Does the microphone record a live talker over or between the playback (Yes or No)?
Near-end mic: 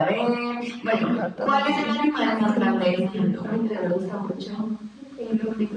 Yes